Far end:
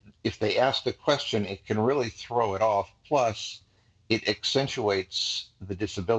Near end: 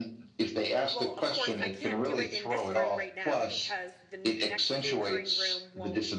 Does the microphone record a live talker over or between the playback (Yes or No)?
Yes